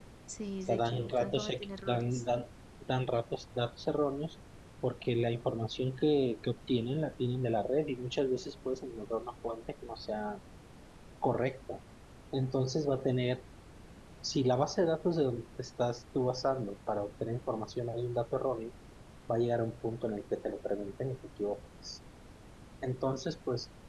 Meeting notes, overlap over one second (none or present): present